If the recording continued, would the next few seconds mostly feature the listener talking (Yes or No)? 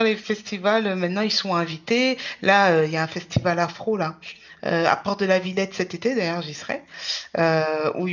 No